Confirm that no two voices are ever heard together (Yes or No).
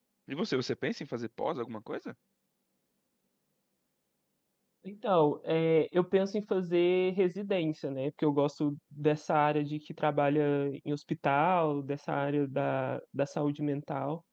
Yes